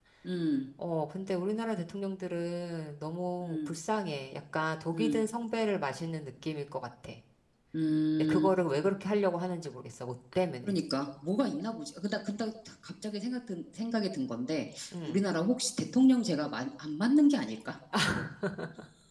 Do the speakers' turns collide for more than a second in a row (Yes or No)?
No